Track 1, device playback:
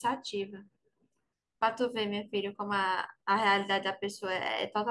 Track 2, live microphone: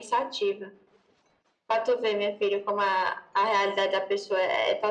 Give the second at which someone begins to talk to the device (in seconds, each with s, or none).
none